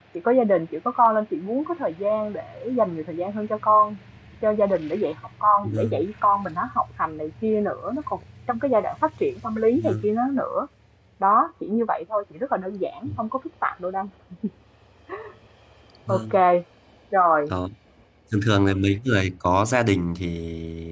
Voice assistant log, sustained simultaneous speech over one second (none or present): none